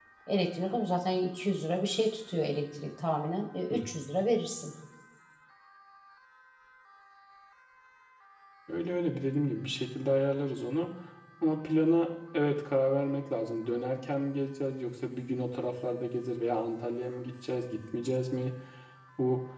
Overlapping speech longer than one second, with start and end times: none

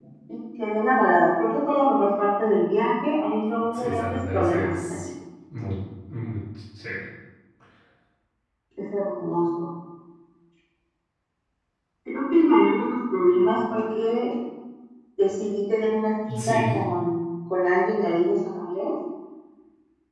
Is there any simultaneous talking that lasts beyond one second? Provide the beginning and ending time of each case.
3.7-4.9

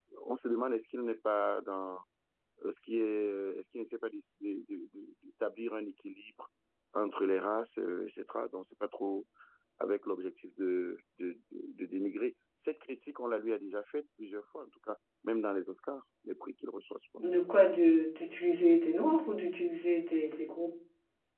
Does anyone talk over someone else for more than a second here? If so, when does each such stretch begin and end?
none

